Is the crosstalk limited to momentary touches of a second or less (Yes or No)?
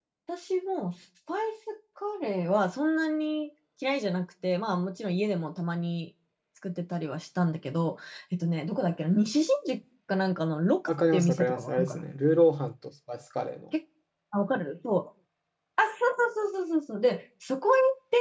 No